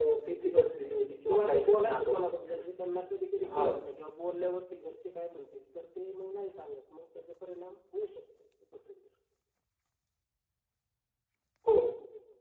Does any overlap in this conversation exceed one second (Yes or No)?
Yes